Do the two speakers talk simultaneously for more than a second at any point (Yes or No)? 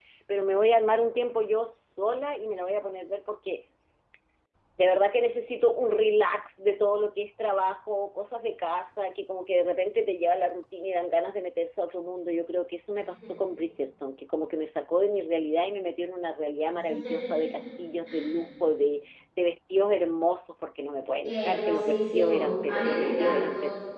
Yes